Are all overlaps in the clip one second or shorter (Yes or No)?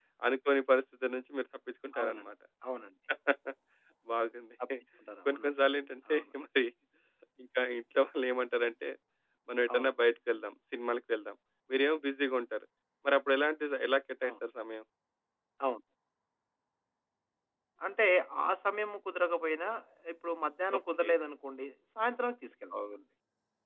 Yes